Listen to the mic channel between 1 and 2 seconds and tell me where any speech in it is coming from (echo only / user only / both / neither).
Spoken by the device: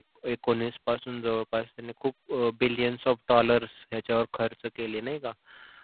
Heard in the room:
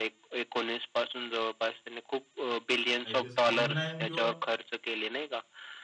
echo only